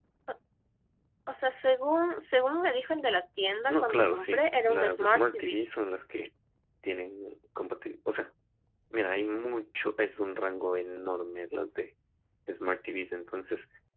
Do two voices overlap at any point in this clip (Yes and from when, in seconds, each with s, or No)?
Yes, from 3.7 s